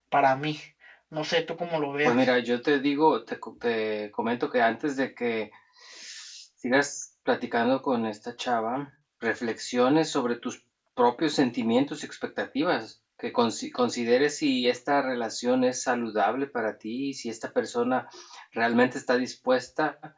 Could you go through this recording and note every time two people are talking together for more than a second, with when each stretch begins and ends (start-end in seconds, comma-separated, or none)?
none